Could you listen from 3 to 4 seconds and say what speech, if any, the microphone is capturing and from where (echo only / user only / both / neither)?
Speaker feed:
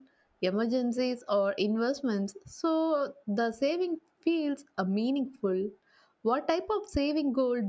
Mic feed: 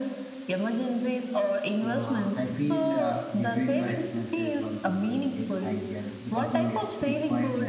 both